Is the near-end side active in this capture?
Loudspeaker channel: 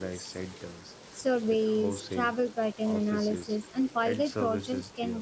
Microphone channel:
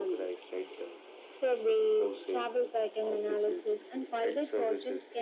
No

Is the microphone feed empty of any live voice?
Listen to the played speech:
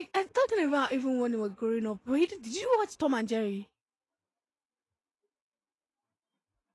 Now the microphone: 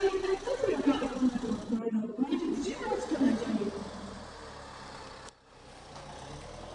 Yes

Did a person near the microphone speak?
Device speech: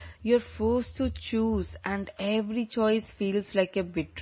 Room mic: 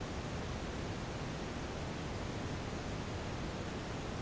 No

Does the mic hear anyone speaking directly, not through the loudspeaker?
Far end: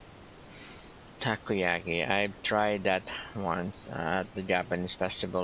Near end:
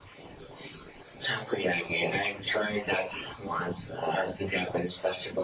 No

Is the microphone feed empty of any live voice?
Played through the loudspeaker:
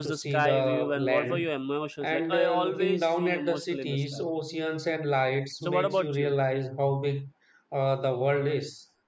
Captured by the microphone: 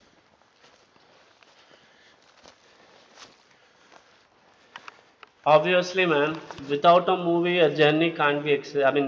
No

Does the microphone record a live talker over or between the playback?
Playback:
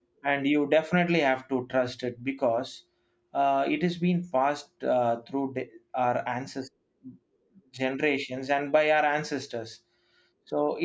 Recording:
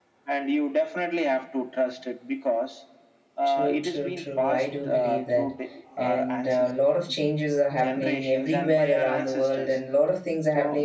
Yes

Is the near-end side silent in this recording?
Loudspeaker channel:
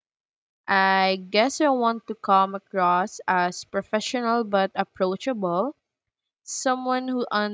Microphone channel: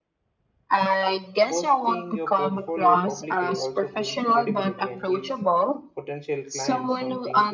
No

